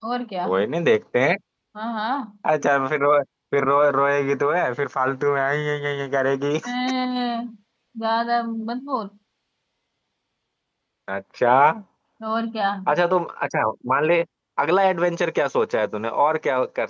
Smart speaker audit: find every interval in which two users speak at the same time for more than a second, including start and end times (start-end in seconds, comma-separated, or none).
none